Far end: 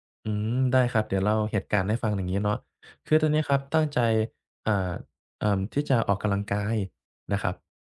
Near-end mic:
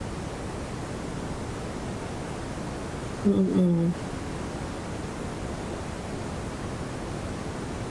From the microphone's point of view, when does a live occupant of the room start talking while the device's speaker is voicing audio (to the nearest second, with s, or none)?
3 s